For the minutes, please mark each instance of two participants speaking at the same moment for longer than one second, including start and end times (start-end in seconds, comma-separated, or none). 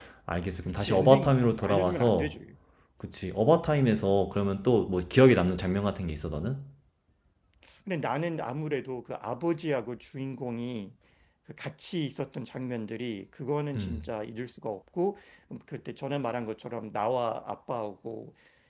0.8-2.3